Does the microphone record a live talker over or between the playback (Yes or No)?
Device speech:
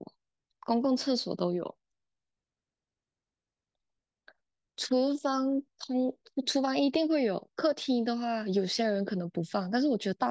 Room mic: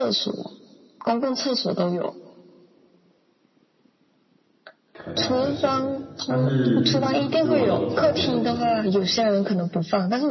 Yes